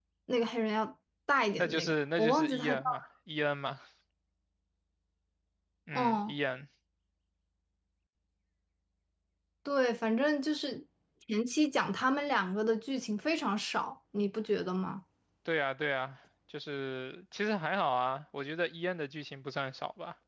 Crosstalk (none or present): present